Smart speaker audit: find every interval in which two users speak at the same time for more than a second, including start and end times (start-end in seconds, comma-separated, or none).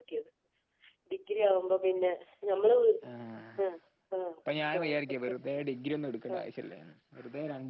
none